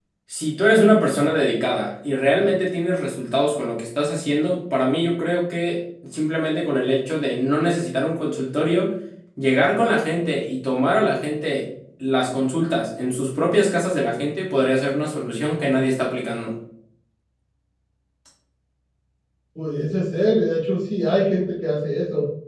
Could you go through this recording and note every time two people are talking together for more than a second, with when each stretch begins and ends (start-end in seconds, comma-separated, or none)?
none